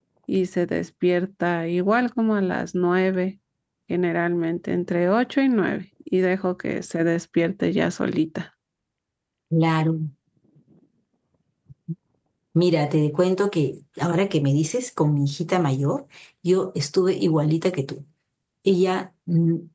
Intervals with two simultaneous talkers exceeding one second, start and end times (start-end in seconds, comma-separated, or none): none